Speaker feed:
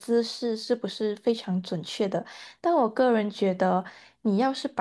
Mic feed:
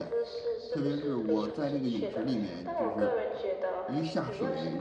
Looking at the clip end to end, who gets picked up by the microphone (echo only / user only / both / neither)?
both